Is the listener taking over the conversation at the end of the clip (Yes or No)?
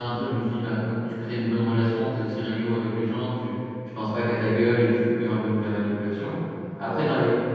No